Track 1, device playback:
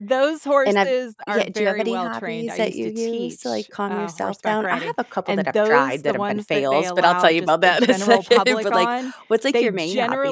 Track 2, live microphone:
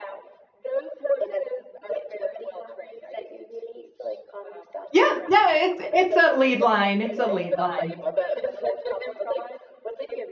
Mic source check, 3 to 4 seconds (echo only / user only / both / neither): echo only